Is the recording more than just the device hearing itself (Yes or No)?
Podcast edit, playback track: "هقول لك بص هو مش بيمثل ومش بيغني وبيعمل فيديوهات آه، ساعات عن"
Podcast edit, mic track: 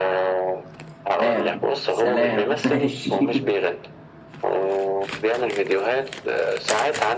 Yes